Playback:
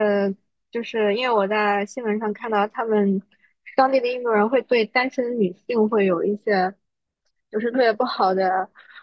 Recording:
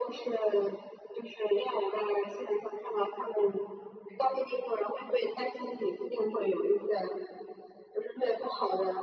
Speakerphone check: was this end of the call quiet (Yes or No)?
Yes